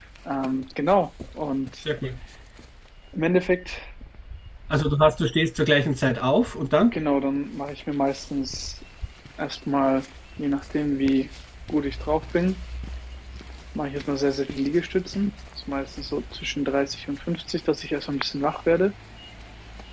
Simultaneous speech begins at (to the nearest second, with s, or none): none